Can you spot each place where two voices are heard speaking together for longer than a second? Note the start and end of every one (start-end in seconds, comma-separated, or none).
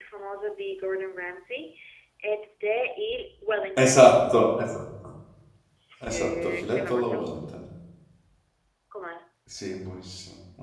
6.0-7.4